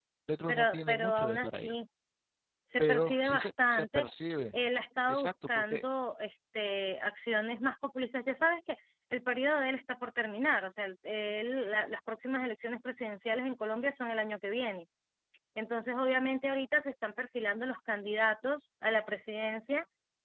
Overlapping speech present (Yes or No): Yes